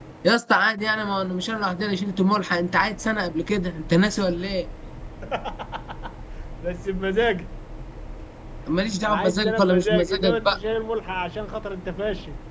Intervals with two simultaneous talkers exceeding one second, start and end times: 9.0-10.5

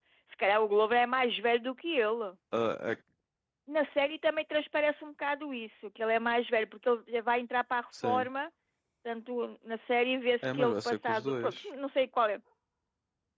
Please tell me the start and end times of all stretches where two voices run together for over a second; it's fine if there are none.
10.4-11.6

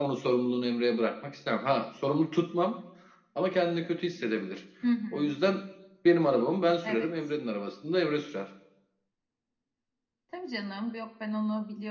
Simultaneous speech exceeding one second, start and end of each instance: none

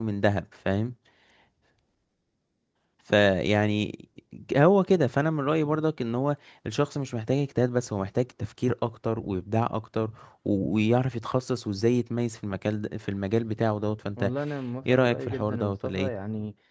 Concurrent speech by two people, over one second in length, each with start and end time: 14.8-16.1

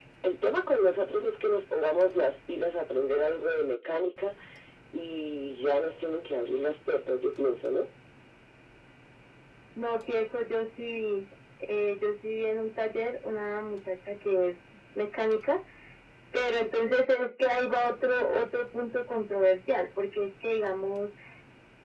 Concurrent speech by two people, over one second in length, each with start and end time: none

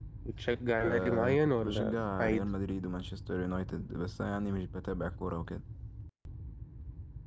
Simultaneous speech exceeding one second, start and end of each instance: 0.8-2.5

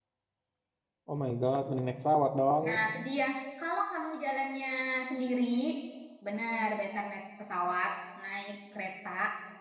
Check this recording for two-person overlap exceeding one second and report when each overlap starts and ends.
none

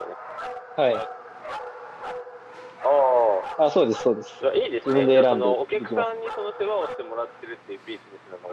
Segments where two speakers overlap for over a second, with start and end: 4.8-6.0

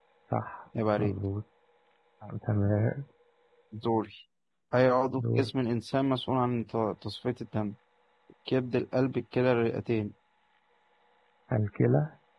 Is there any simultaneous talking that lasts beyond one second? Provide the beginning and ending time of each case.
none

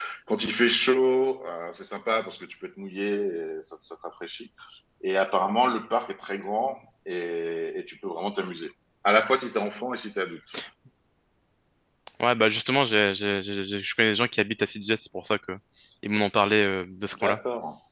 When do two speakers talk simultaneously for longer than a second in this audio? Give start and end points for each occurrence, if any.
none

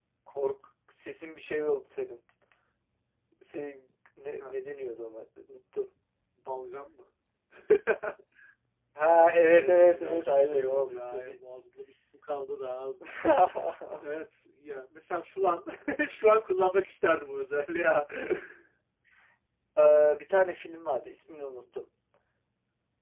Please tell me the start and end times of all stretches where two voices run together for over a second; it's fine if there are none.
9.6-11.3

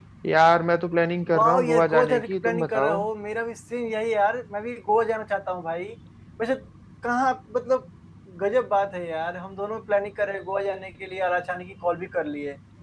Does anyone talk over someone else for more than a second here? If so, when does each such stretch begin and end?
1.3-3.0

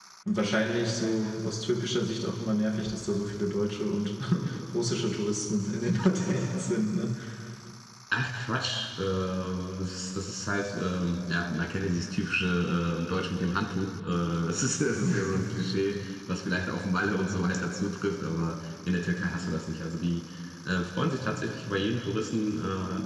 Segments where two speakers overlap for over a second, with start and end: none

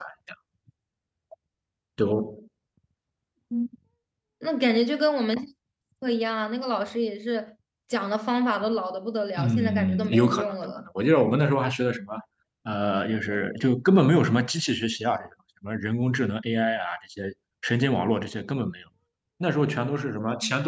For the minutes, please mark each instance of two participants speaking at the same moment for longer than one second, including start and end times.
9.4-10.8

